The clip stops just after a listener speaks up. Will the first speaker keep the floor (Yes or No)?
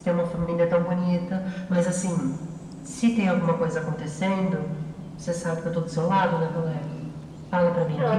No